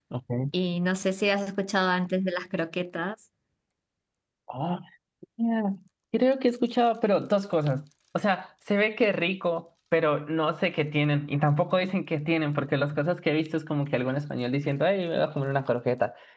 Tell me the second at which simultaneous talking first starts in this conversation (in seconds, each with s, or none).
none